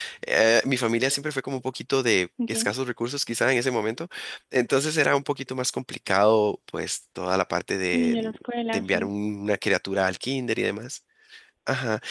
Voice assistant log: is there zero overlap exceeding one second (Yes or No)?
Yes